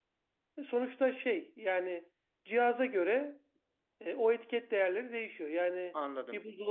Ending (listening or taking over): listening